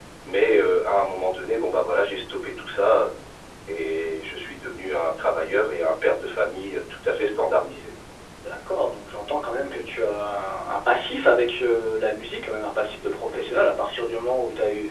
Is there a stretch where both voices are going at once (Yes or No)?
No